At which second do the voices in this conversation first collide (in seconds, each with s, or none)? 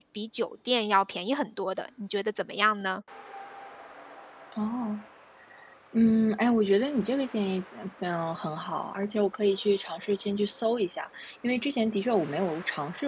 none